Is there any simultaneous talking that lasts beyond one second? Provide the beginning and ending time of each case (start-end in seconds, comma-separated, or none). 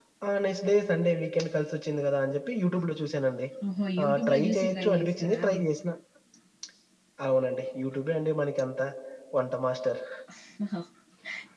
4.0-5.4